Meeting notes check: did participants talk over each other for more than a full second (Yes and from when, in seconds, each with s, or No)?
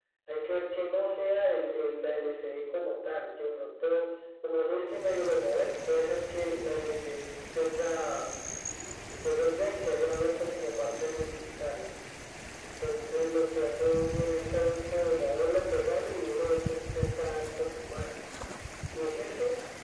No